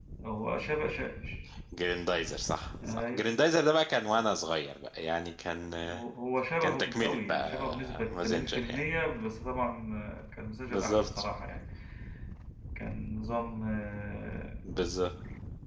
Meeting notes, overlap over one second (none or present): present